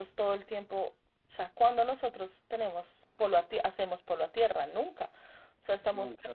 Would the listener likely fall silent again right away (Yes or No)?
Yes